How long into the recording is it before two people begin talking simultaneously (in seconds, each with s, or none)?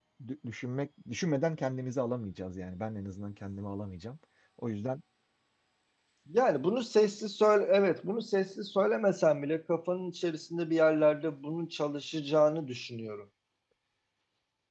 none